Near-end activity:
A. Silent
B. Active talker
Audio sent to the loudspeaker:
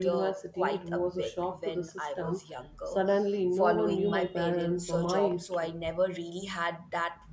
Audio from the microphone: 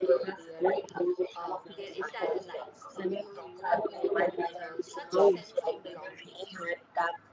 B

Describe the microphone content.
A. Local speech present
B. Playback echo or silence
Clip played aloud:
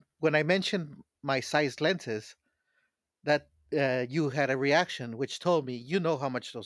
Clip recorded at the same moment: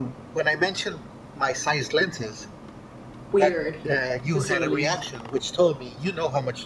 A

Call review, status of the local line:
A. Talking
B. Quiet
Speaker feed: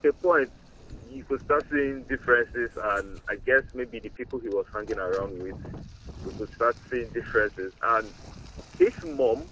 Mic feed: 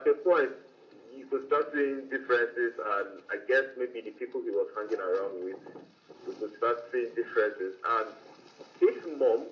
B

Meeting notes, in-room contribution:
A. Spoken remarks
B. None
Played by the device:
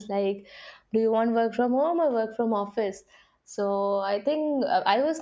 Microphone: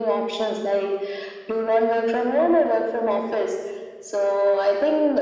B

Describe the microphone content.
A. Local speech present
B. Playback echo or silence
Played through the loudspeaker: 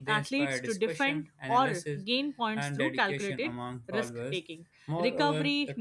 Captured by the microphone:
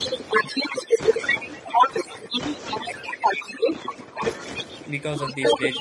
A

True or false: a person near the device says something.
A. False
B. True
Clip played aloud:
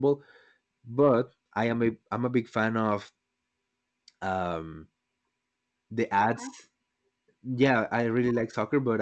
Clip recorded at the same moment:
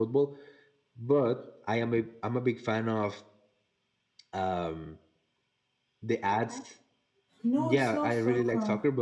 B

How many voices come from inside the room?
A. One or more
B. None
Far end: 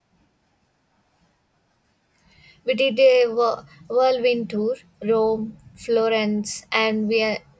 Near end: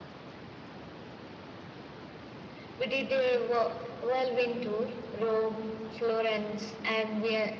B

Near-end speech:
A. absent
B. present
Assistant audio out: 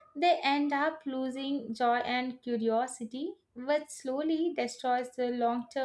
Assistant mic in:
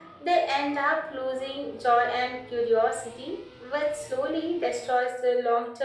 A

